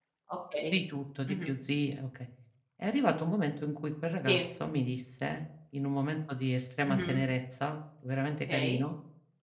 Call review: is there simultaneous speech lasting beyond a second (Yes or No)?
No